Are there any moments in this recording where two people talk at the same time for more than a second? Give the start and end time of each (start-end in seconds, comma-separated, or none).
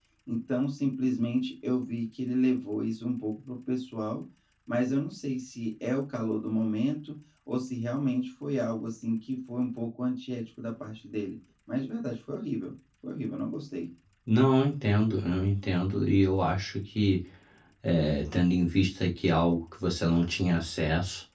none